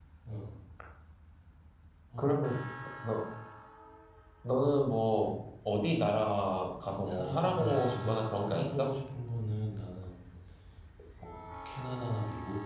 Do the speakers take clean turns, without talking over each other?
No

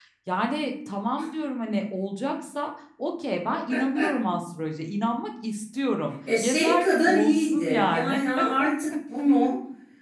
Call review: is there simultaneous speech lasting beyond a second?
Yes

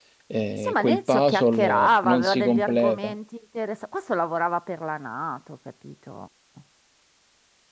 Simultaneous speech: Yes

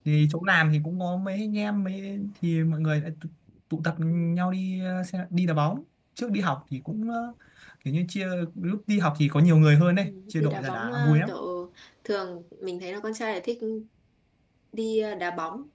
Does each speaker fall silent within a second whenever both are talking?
No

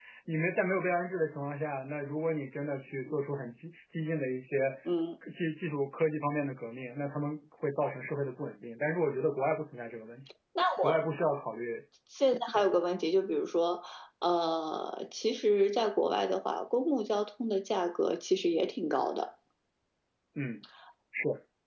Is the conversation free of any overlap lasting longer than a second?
Yes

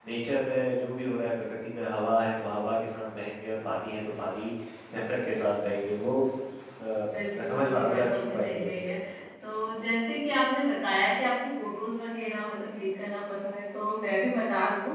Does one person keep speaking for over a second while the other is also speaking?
Yes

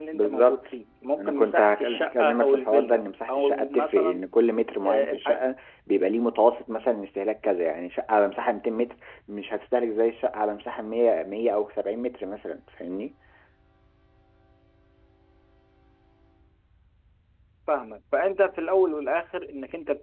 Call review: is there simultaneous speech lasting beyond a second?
Yes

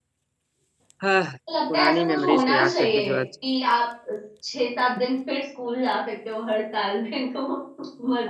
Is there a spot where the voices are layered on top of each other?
Yes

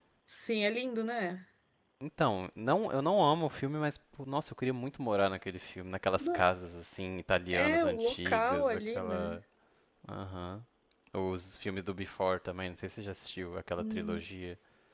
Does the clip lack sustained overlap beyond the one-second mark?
No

